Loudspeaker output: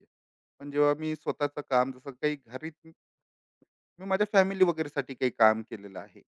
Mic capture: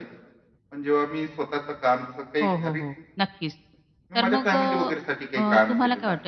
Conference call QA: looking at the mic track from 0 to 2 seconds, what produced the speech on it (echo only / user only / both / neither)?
echo only